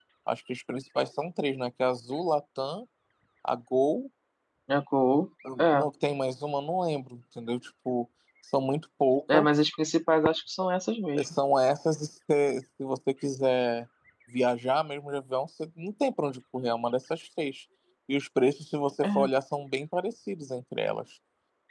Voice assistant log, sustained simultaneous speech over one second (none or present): none